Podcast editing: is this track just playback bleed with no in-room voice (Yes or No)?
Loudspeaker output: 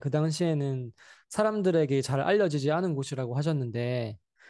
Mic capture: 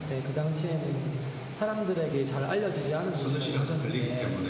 No